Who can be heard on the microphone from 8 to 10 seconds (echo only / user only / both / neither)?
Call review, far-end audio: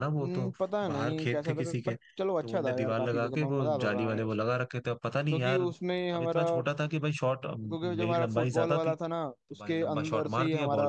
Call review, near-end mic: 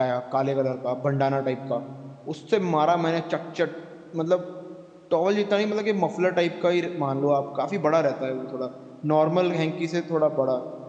user only